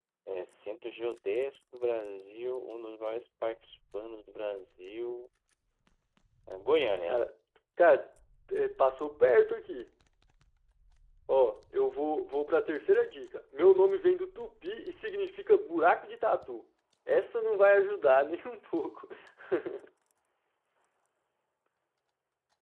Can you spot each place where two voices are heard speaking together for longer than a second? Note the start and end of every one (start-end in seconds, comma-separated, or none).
none